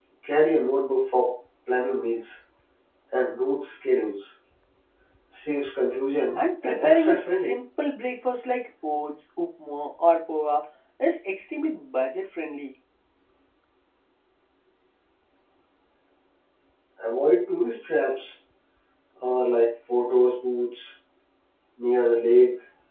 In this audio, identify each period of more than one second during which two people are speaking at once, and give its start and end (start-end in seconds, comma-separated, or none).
6.3-7.6